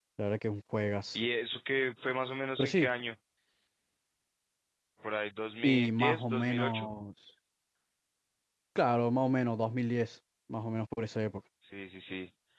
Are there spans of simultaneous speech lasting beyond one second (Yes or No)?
Yes